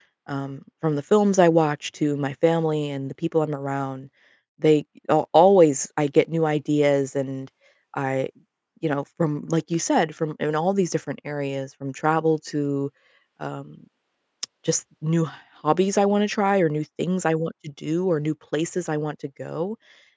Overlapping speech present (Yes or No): No